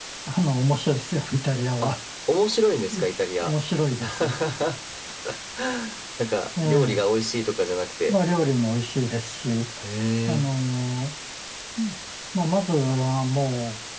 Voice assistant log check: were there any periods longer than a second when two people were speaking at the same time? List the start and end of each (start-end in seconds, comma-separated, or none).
none